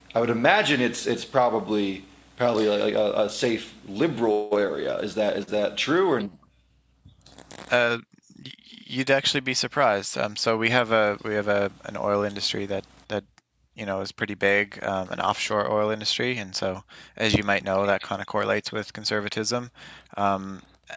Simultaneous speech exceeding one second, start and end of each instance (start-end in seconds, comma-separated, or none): none